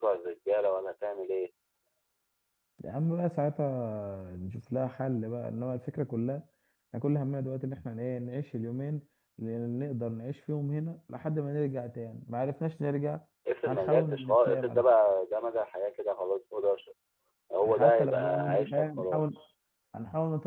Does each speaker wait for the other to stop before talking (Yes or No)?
No